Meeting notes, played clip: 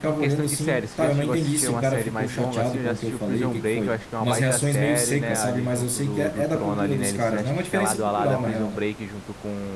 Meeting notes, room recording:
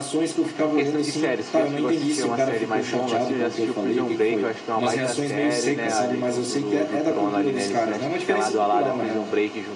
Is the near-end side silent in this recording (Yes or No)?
Yes